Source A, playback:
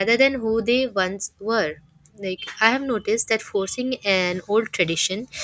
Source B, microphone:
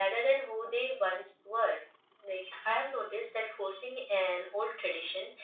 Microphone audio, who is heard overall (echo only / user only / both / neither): echo only